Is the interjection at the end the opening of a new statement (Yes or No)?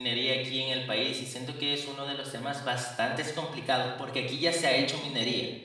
No